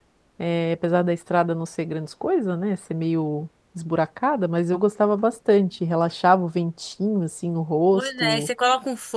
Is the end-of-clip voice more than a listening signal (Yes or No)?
Yes